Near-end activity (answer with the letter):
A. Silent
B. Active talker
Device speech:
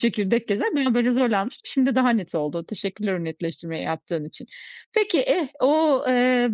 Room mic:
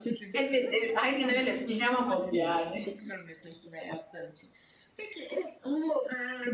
B